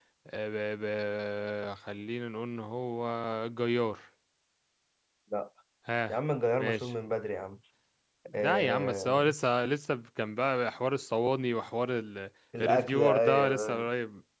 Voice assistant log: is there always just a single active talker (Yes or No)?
No